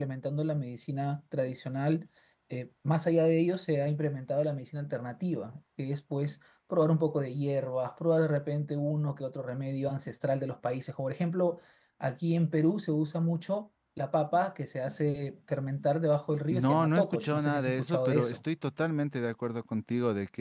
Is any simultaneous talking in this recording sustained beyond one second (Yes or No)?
Yes